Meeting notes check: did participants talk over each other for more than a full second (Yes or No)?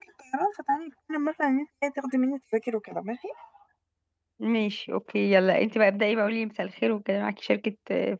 No